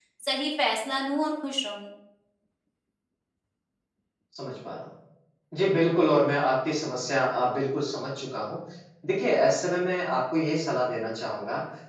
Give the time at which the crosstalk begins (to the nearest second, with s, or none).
none